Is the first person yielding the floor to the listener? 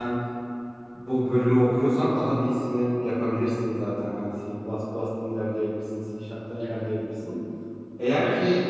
Yes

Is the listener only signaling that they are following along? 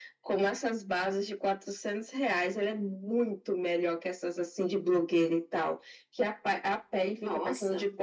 Yes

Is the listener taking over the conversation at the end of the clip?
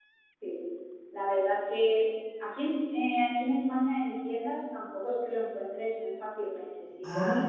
No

